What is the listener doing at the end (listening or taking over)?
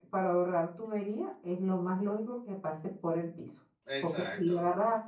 listening